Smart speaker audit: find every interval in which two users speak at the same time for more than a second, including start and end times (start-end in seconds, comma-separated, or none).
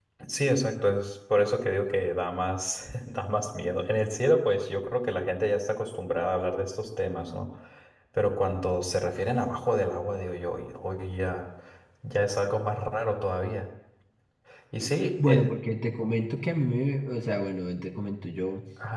none